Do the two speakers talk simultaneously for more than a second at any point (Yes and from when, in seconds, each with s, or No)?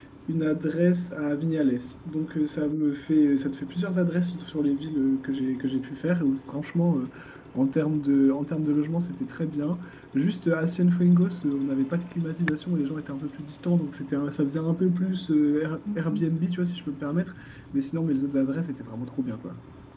No